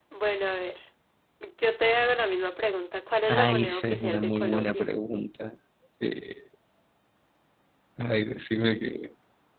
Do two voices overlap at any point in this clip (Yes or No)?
Yes